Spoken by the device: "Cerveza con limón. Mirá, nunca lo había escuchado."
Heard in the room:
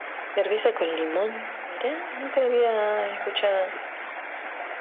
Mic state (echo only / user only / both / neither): echo only